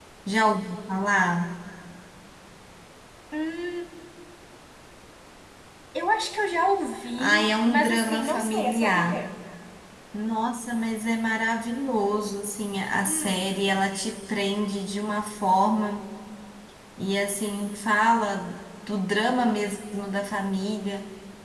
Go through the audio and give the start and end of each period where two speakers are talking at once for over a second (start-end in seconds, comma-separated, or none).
7.2-9.2